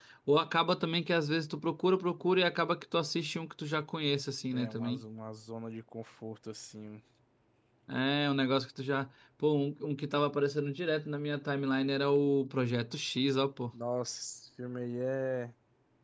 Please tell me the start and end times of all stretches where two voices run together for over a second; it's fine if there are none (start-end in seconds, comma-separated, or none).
none